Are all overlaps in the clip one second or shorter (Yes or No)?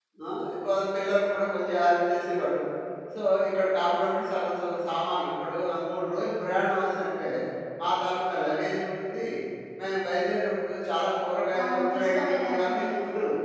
No